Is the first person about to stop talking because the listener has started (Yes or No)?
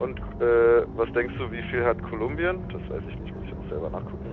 Yes